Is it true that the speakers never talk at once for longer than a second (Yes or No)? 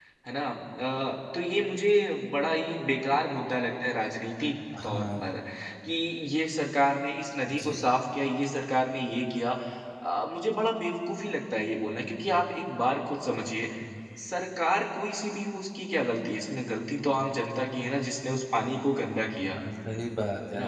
Yes